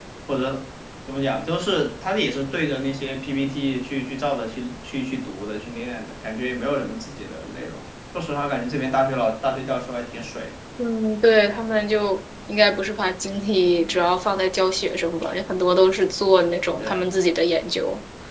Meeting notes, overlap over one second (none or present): none